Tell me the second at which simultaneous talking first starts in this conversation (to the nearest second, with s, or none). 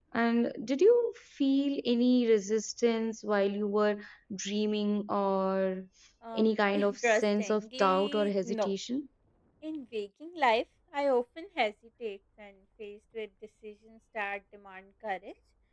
6 s